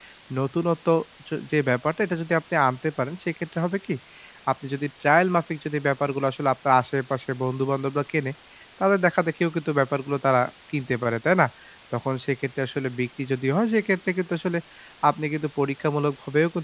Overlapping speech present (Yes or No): No